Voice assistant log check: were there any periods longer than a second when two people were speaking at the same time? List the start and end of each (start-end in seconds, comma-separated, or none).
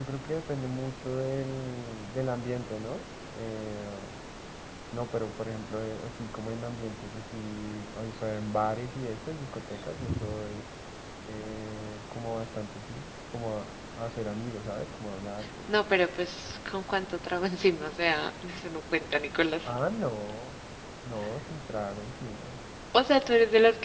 none